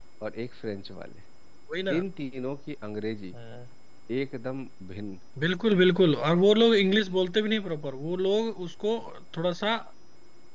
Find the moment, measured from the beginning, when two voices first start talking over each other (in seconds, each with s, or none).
none